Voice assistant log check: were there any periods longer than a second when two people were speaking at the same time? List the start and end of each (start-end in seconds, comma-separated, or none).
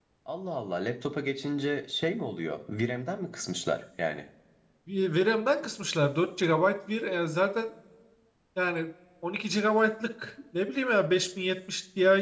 none